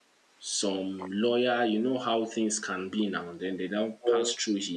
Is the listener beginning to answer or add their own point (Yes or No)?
No